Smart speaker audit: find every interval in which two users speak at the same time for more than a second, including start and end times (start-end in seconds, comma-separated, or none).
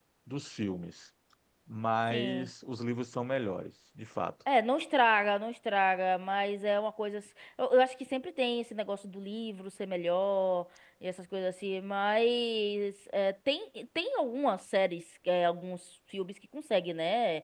none